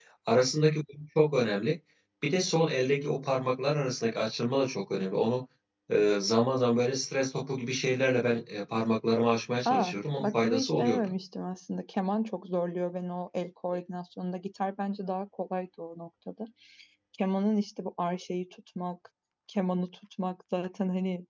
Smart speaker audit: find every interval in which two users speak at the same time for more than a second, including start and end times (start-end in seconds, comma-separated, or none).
9.7-11.2